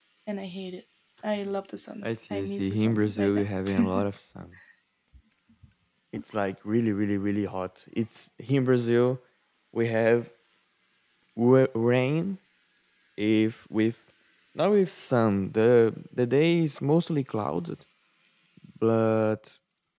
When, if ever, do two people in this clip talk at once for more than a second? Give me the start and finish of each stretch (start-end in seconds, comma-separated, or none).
2.0-3.4